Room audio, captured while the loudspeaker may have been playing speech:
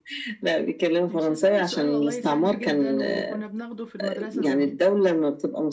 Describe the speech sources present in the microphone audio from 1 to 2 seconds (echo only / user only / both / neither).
both